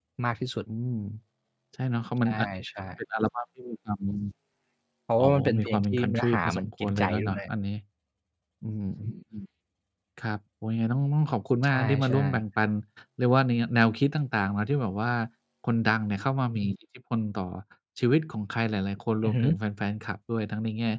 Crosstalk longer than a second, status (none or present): present